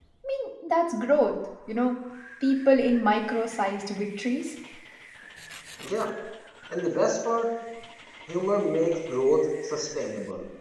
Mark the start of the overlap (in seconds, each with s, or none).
none